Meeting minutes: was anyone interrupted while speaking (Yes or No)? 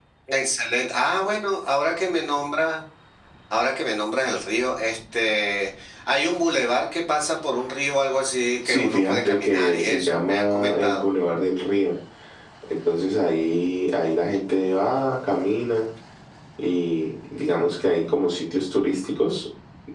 Yes